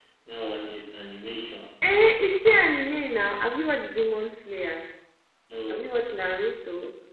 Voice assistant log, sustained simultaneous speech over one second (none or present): none